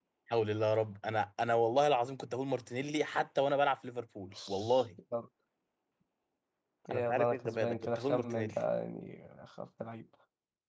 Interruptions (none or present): present